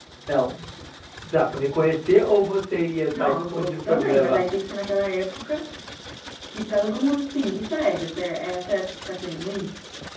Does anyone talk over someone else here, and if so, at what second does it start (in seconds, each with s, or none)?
3.1 s